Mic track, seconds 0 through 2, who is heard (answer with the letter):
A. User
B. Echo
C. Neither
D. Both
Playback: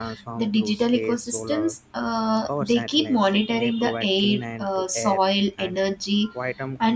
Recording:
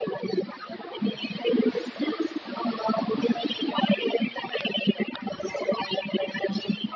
B